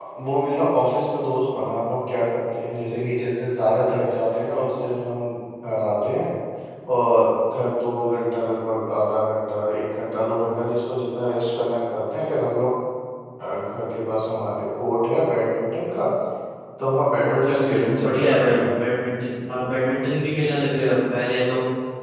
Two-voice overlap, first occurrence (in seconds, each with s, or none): 17.4 s